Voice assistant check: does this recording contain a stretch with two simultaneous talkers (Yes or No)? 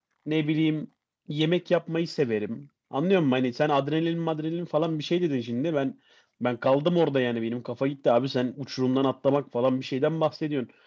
No